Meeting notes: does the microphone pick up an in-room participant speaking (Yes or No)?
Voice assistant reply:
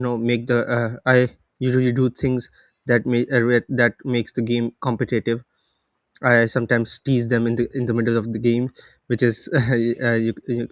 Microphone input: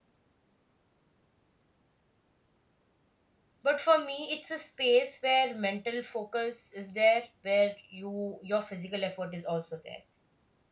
Yes